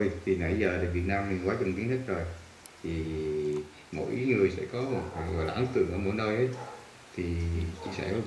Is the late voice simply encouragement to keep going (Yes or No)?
Yes